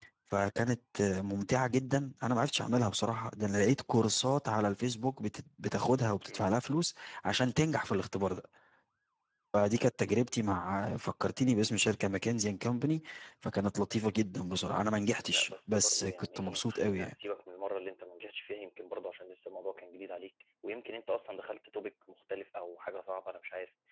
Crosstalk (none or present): present